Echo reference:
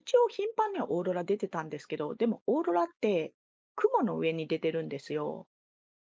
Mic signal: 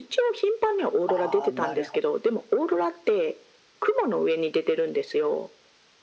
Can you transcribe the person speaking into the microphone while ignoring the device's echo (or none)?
ああ、なるほど